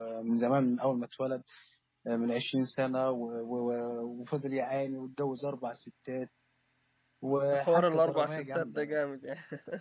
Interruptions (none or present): present